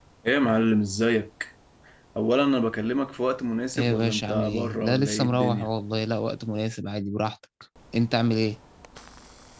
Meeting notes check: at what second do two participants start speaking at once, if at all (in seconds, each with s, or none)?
3.7 s